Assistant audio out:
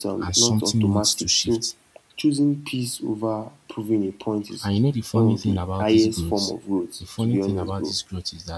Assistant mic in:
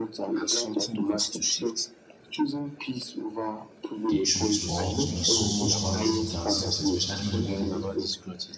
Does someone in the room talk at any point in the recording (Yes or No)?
Yes